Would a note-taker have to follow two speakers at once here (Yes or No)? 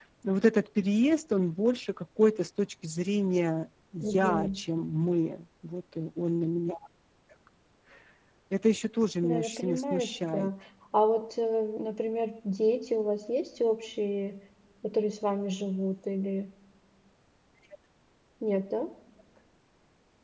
Yes